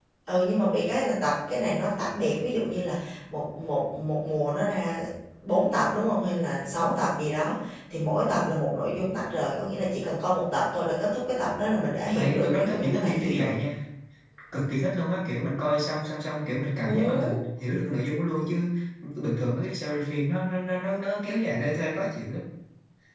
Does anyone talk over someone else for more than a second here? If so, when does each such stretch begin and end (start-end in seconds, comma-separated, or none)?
12.1-13.6